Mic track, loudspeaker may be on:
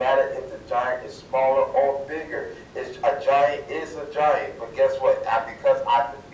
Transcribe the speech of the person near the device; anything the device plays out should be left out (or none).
none